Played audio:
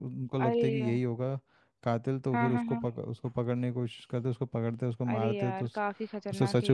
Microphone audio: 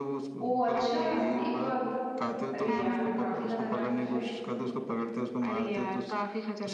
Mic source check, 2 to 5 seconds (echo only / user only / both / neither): both